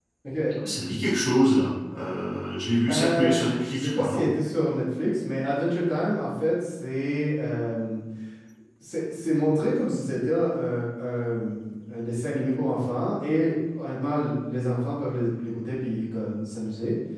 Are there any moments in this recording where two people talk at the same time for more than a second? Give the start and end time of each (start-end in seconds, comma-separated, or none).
2.9-4.3